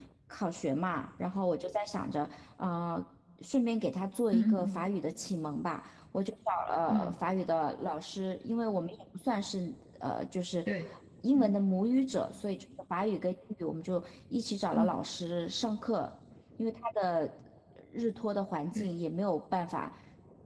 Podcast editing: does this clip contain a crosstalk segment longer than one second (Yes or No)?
No